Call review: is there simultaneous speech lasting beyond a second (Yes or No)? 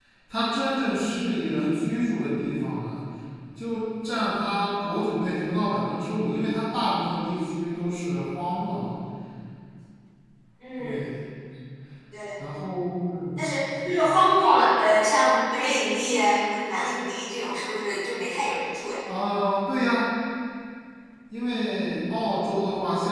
No